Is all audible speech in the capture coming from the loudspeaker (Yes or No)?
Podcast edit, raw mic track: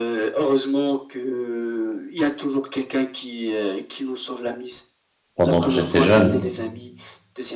No